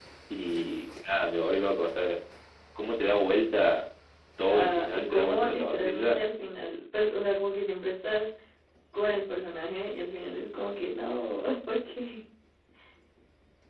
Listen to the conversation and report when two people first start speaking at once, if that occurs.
4.5 s

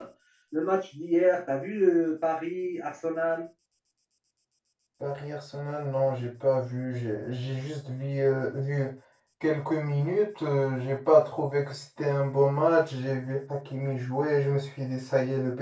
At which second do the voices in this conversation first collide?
none

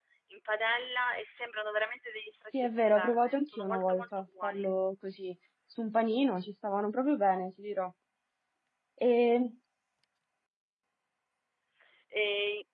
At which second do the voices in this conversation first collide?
2.5 s

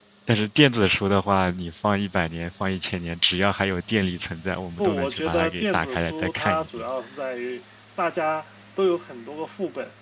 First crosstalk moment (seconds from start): 4.8 s

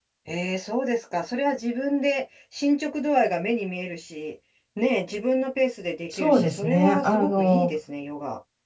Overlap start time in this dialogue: 6.1 s

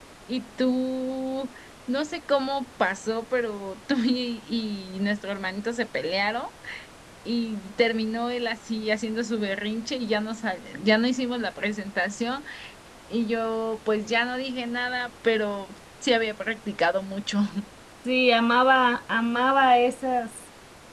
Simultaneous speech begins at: none

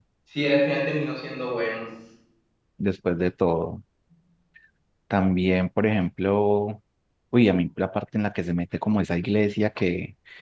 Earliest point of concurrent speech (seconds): none

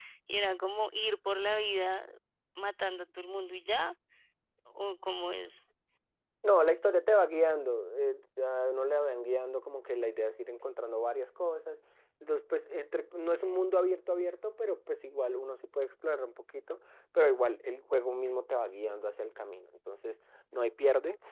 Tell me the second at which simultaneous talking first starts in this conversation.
none

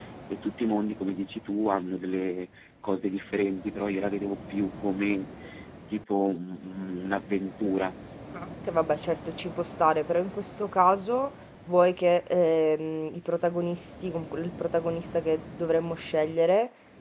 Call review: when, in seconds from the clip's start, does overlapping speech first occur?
none

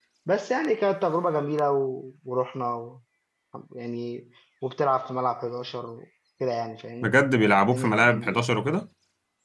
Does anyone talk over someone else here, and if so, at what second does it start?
7.0 s

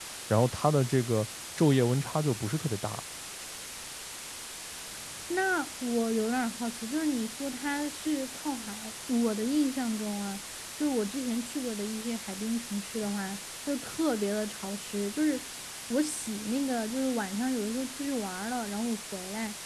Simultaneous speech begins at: none

